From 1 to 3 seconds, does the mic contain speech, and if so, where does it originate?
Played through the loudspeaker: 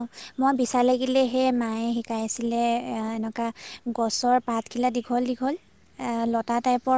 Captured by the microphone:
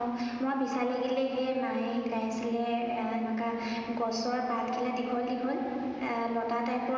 echo only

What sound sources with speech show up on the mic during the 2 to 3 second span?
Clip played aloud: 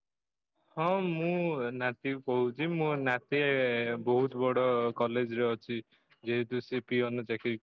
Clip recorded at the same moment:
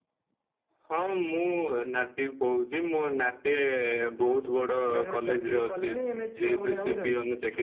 echo only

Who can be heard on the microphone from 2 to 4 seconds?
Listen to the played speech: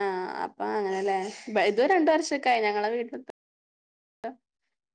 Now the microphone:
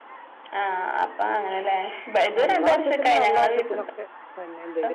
both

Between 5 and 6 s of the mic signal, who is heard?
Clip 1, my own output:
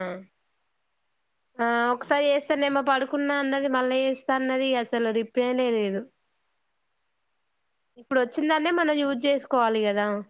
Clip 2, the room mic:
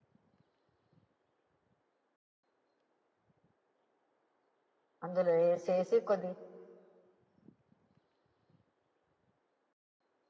user only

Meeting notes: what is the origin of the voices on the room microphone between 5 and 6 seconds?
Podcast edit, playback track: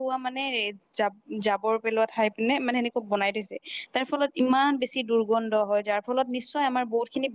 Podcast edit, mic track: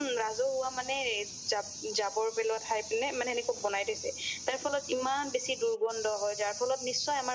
echo only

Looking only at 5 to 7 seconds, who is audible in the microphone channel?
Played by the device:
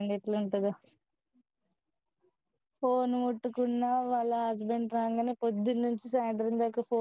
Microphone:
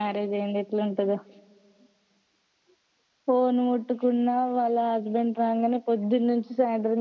echo only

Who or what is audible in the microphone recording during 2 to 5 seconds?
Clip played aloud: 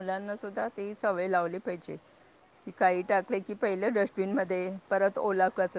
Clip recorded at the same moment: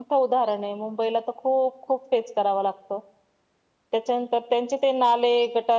user only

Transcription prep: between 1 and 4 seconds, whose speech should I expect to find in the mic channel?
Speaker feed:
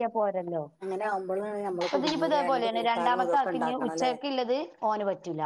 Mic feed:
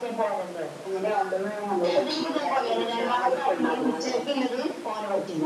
echo only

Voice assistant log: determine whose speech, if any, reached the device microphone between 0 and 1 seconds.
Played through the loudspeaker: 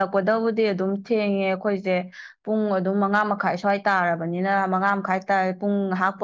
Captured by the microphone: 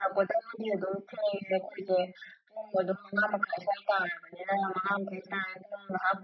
echo only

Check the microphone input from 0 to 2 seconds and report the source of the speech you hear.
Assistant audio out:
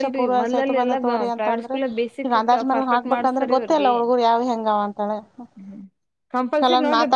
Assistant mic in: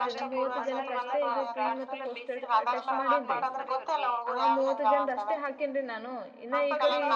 both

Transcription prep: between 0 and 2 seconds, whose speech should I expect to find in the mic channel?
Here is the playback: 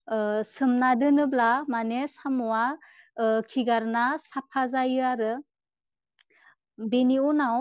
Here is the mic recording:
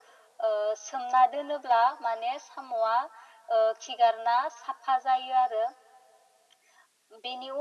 echo only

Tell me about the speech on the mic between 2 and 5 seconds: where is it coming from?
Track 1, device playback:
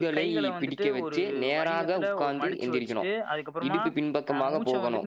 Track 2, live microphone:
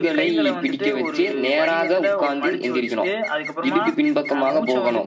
echo only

